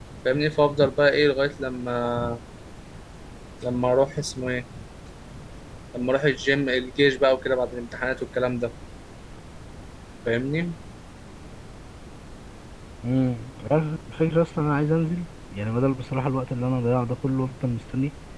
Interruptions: none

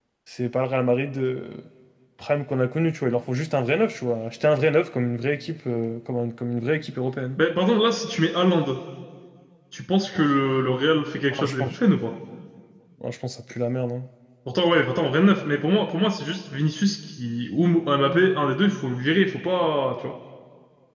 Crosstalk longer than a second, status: none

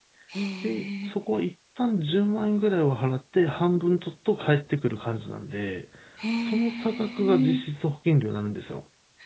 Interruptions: present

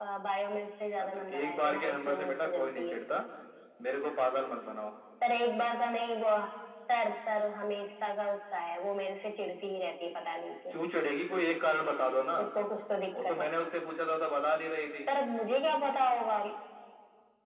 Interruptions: present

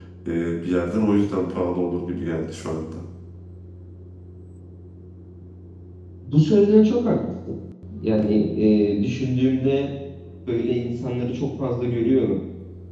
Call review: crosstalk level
none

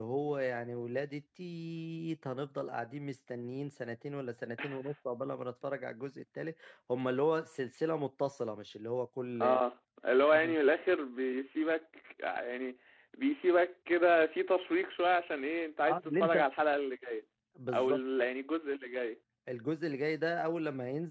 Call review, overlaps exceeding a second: none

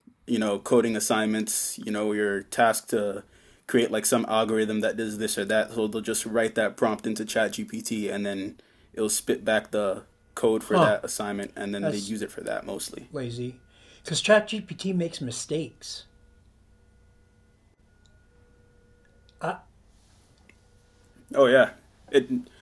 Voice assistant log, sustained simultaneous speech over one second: none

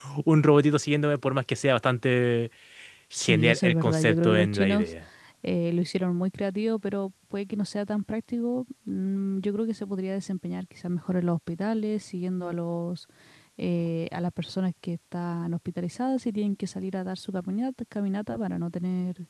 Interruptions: present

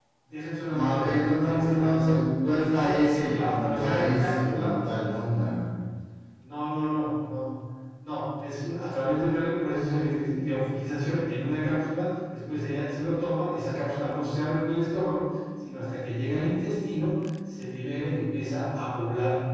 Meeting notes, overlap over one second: present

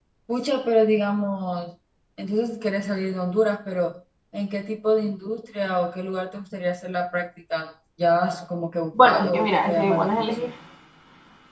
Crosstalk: present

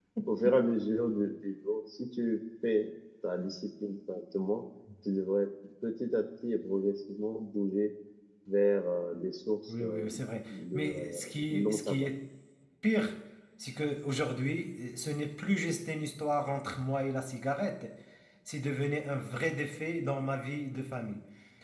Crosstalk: present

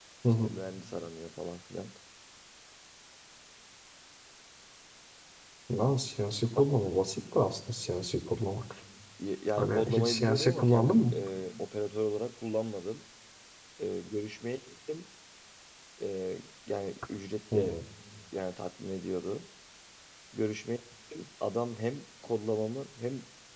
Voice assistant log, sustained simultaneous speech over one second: present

